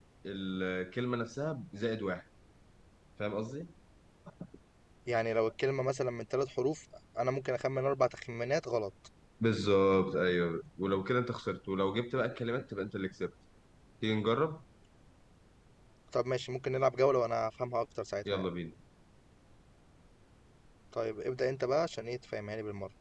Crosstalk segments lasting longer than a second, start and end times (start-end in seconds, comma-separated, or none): none